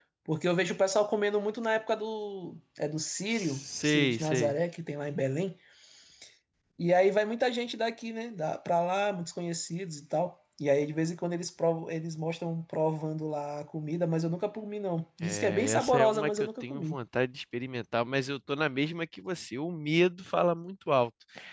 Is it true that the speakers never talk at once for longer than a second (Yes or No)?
No